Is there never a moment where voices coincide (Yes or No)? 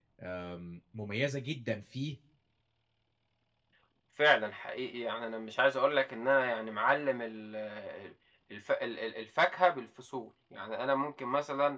Yes